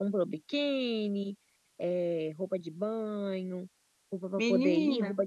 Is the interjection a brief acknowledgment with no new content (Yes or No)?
Yes